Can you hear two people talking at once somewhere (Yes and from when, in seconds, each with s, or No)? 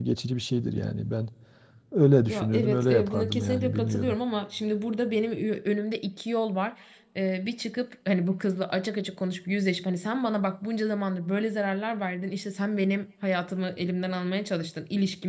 Yes, from 2.3 s